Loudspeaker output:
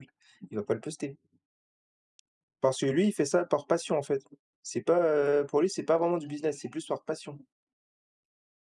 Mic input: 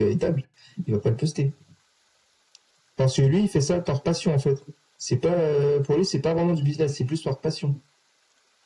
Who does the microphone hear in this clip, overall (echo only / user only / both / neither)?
echo only